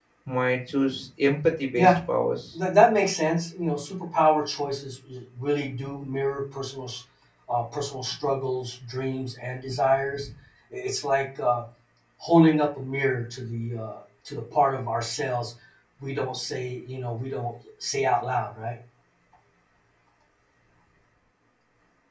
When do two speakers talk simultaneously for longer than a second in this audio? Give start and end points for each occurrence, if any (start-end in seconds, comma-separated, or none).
none